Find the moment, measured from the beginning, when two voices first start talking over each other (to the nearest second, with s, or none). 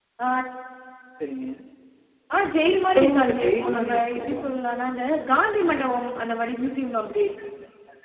3 s